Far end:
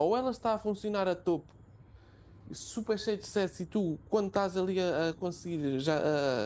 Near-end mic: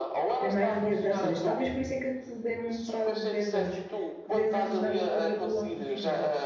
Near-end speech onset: 0.4 s

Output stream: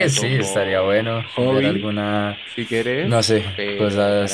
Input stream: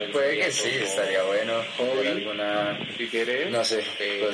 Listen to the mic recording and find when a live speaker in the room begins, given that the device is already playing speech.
none

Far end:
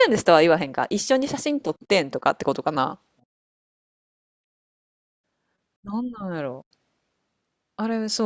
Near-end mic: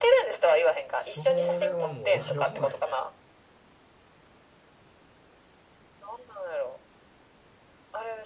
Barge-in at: 0.9 s

